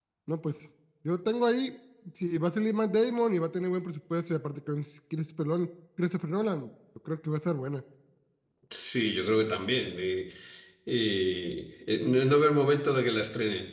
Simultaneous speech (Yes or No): No